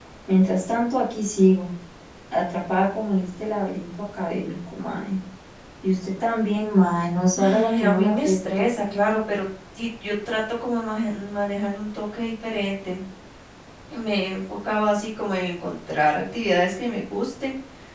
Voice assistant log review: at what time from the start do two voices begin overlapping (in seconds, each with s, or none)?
7.4 s